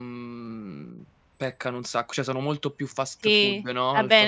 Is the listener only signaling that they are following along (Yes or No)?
No